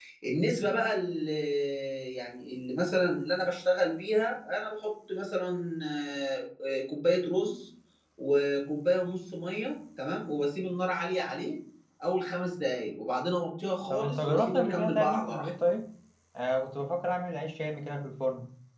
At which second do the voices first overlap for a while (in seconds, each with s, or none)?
13.9 s